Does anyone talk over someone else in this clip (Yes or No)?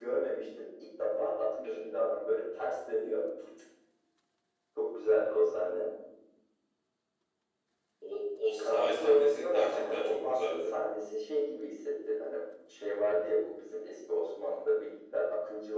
Yes